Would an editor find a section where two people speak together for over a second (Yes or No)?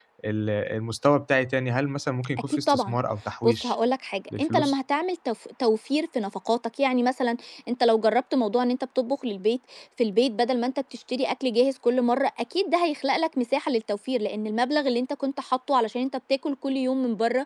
No